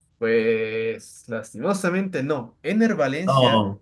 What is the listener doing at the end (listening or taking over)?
listening